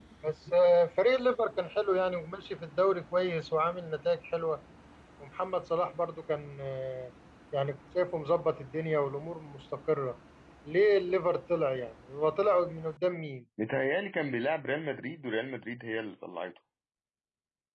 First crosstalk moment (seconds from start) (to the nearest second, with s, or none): none